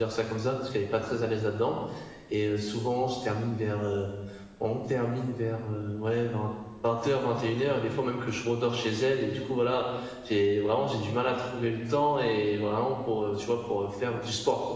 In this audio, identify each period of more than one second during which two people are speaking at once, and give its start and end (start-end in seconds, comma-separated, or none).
none